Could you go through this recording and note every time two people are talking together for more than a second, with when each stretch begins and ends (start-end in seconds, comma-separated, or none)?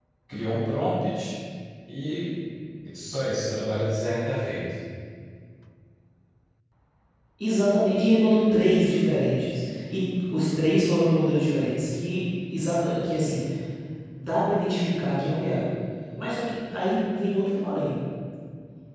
none